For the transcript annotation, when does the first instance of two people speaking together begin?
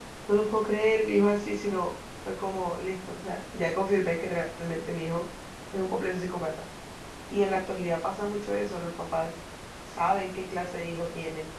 none

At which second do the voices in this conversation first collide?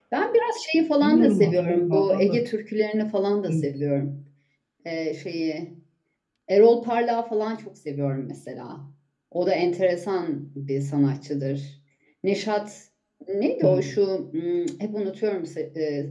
1.0 s

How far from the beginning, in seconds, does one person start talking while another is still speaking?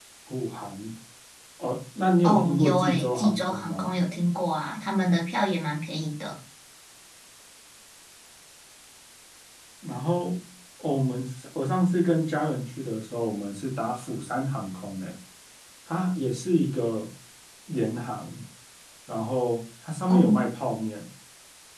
2.2 s

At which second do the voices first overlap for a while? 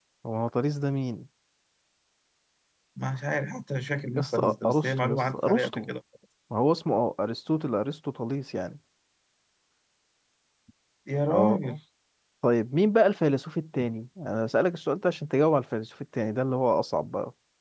4.1 s

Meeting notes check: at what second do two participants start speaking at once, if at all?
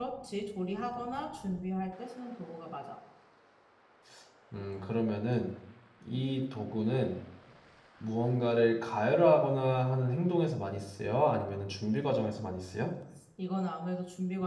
none

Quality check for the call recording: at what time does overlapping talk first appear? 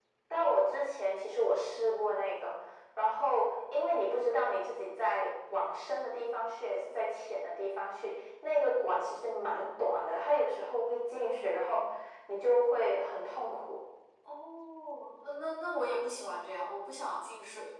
none

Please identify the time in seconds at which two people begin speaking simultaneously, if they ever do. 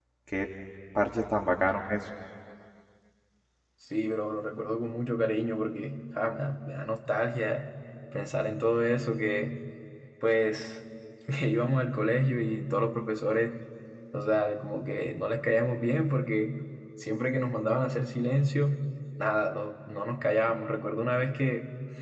none

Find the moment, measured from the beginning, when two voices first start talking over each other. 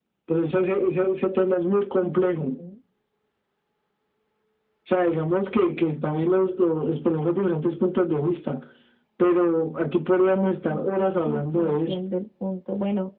10.7 s

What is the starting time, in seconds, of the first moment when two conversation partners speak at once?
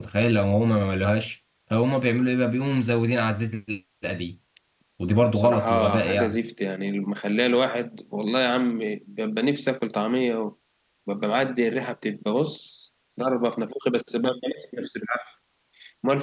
5.1 s

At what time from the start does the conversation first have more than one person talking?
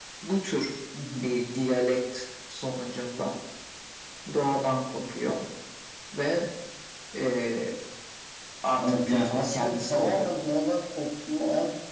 8.8 s

